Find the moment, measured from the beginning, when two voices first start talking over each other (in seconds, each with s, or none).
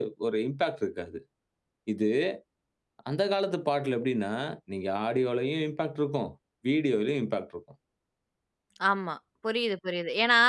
none